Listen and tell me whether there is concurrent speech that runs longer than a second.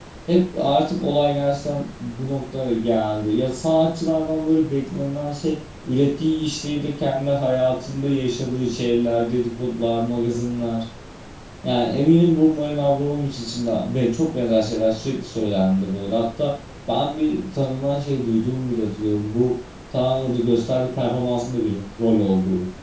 No

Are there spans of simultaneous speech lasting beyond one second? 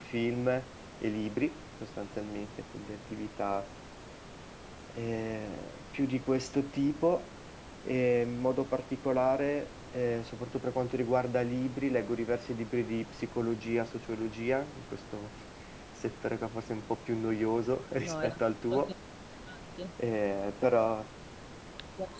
No

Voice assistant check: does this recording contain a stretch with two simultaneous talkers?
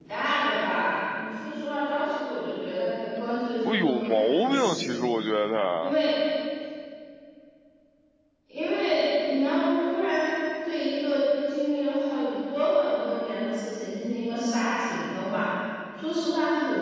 Yes, from 3.6 s

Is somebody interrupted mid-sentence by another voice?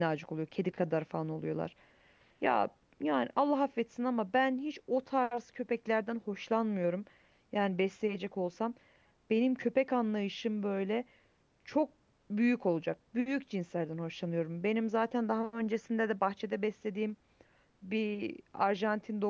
No

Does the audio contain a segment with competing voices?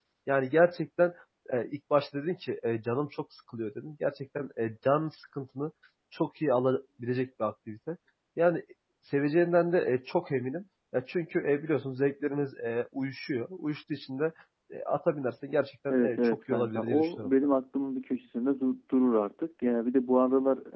Yes, from 15.9 s

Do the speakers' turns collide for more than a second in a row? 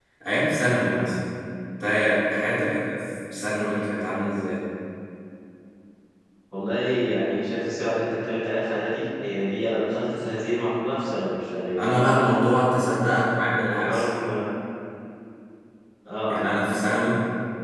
No

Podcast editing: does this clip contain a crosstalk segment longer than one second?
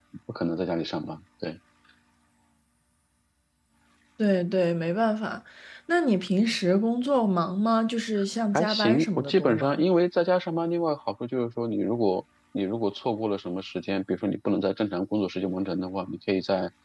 Yes, from 8.5 s

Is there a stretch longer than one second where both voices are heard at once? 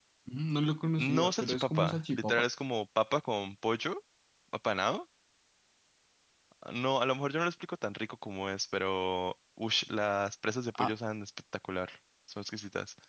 Yes, from 1.2 s

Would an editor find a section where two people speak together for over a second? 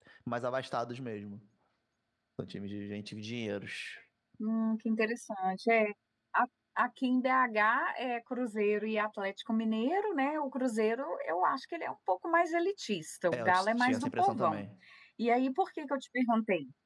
Yes, from 13.3 s

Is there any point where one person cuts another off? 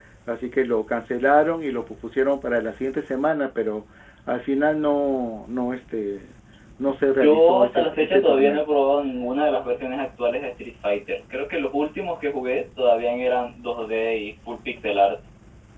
Yes, from 7.2 s

